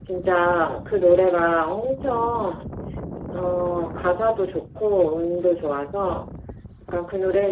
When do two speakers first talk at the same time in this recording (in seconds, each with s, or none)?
none